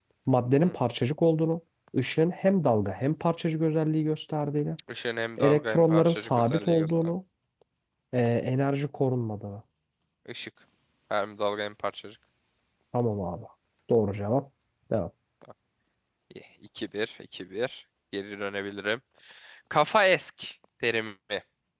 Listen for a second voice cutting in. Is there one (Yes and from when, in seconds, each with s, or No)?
Yes, from 5.4 s